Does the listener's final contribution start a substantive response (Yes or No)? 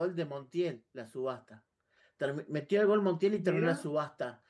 No